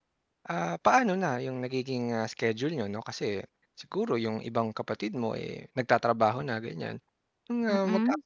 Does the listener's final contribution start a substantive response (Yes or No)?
No